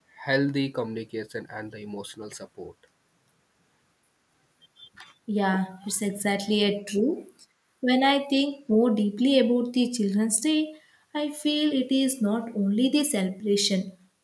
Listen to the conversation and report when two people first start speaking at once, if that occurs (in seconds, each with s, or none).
none